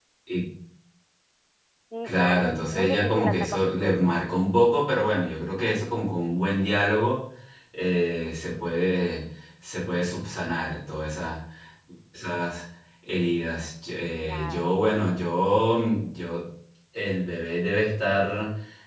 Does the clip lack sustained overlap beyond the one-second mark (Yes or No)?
No